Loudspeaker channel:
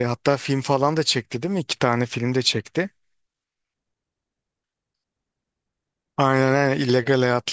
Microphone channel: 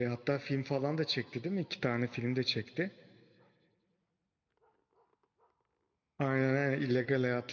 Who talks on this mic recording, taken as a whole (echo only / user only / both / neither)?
echo only